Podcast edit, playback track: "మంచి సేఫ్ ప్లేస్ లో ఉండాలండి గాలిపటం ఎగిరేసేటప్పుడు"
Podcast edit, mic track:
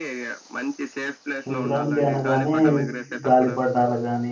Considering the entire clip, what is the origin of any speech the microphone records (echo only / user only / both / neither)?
both